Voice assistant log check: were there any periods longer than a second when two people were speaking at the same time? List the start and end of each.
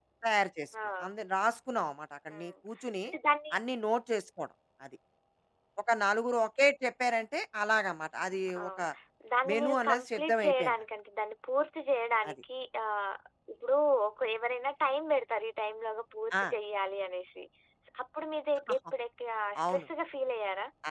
9.5-10.7

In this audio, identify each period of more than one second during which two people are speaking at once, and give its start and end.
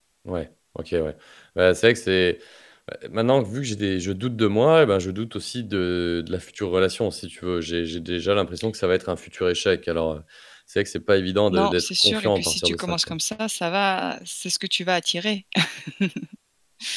11.5-12.9

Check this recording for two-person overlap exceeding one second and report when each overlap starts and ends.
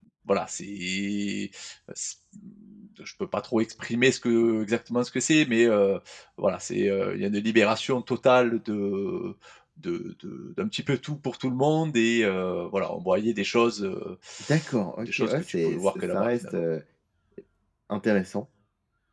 15.0-16.6

